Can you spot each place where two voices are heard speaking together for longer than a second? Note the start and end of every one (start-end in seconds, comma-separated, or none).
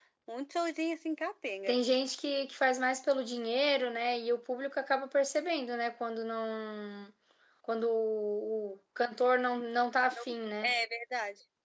none